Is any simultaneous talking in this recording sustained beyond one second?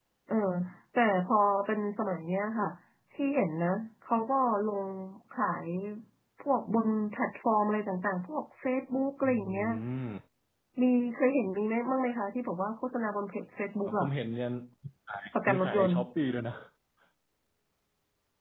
No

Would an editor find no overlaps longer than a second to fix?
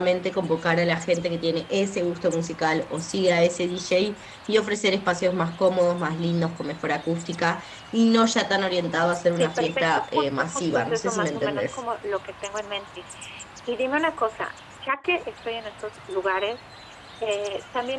No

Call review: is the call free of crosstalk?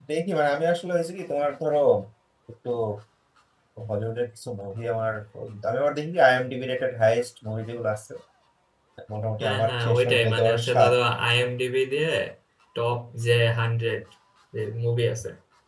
No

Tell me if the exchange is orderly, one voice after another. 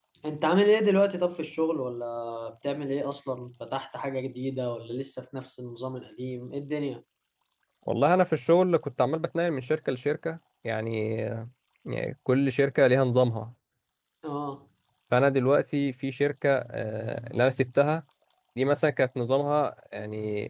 Yes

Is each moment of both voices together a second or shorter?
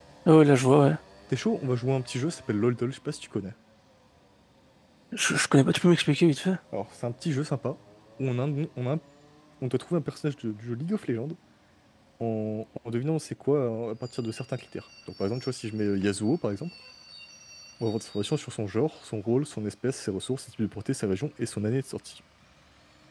Yes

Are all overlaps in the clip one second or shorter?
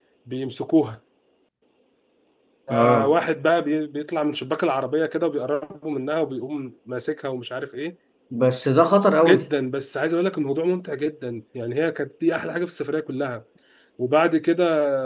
Yes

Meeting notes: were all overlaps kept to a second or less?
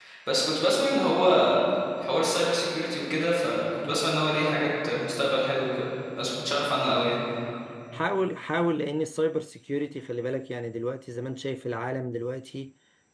Yes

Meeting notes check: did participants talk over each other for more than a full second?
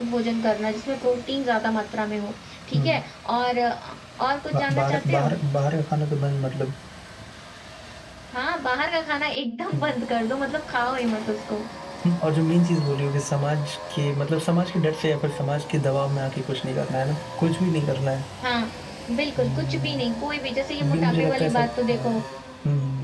Yes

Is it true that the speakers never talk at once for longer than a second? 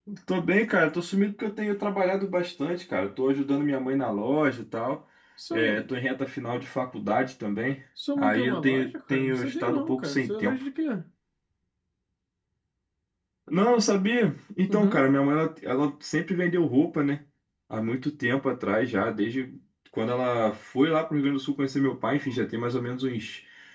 No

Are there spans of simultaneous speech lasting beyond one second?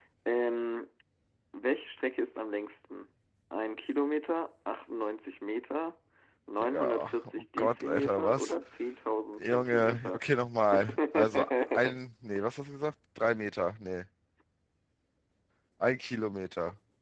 Yes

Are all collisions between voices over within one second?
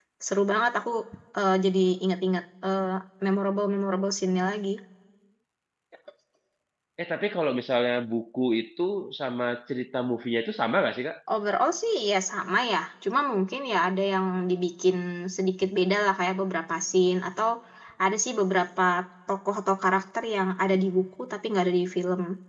Yes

